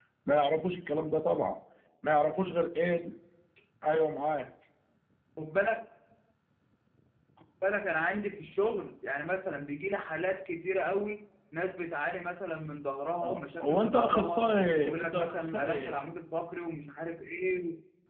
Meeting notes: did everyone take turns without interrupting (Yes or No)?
No